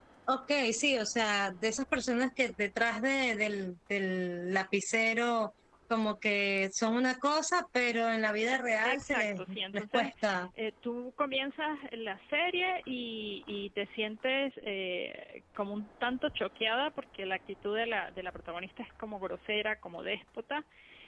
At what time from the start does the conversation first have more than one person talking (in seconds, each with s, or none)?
8.8 s